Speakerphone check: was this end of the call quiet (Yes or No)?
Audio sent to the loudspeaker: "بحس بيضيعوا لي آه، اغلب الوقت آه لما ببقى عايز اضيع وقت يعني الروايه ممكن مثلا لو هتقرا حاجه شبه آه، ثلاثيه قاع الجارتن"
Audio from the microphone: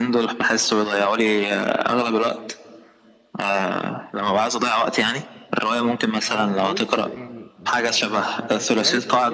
No